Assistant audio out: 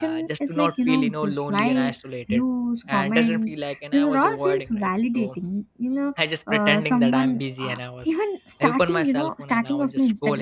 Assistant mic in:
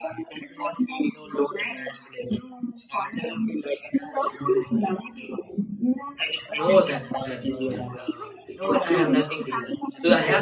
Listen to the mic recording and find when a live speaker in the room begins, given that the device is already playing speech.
7 s

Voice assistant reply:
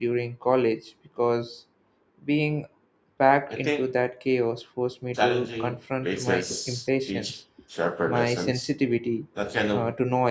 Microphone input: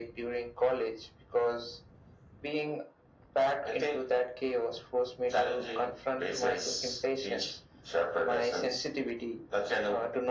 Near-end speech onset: none

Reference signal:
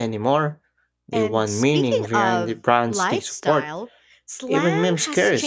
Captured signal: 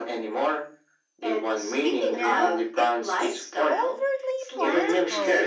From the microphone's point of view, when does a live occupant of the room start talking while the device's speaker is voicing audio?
2 s

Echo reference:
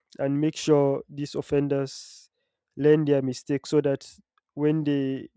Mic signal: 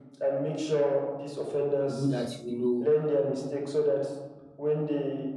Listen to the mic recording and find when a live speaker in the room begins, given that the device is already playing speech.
2 s

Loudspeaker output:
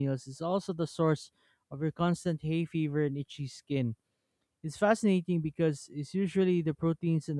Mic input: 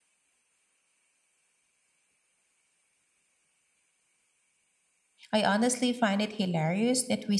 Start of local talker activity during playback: 5 s

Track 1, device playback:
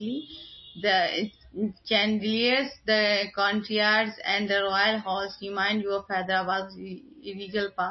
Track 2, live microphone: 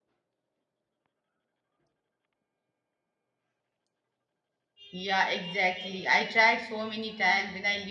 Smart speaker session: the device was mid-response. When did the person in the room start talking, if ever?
5 s

